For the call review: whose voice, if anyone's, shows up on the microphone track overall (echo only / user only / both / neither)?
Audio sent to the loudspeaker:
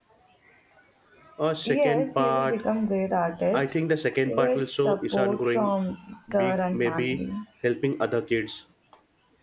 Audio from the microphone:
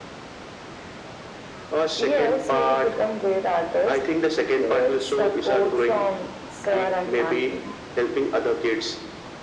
echo only